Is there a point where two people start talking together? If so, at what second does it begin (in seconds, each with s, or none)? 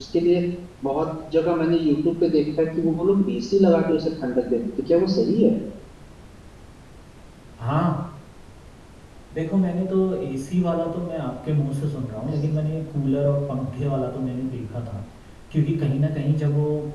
none